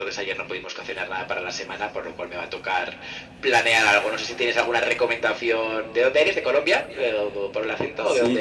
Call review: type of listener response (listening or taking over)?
taking over